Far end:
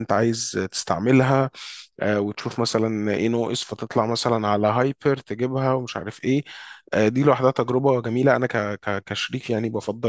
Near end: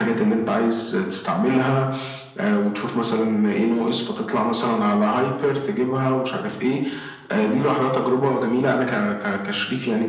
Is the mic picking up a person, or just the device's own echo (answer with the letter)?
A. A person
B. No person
B